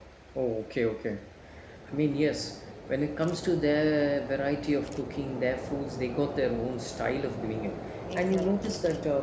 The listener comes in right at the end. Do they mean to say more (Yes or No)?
No